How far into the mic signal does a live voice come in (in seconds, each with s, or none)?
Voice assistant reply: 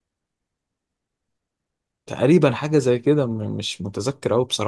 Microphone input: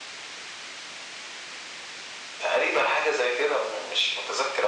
none